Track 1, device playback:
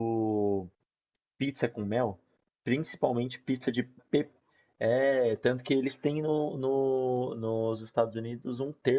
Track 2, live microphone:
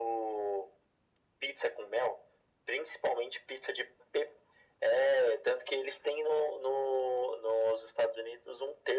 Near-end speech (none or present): none